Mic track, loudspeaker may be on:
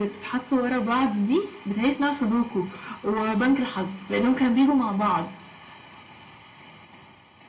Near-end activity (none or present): none